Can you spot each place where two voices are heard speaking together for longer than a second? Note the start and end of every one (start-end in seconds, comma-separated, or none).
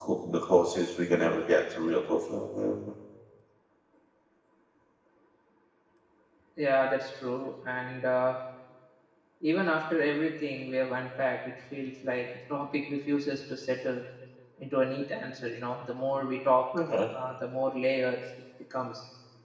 none